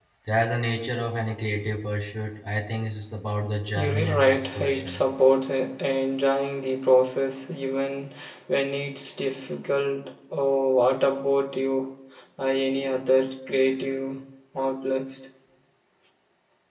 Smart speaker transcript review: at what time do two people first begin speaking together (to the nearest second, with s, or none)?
4 s